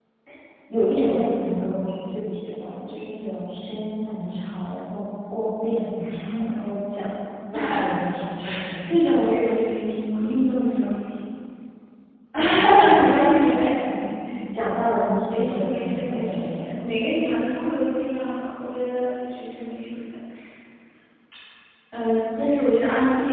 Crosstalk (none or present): present